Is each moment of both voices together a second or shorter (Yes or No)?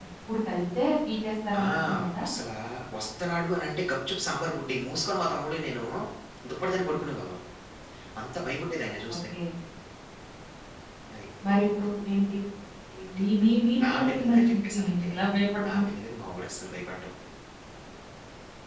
No